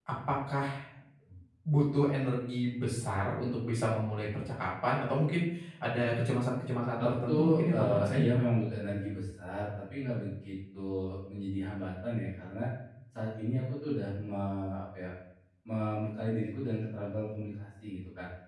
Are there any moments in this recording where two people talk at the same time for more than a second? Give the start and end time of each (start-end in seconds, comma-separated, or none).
7.0-8.2